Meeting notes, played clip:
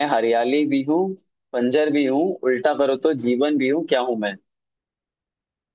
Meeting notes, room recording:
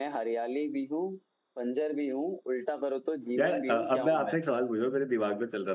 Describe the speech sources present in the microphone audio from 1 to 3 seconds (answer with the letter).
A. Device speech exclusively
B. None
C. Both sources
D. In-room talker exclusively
A